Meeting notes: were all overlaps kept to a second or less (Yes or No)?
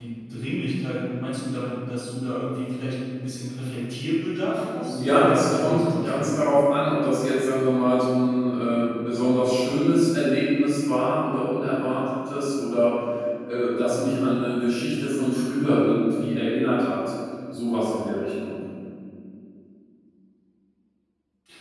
No